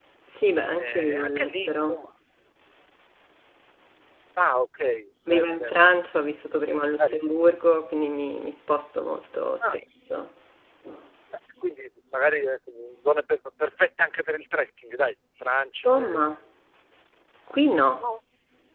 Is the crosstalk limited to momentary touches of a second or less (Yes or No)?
No